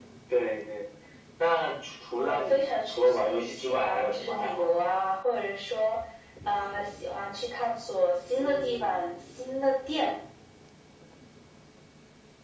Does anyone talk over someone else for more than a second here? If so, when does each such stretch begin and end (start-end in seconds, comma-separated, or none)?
2.2-4.8